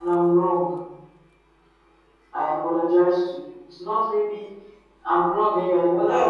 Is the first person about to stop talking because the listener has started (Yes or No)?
Yes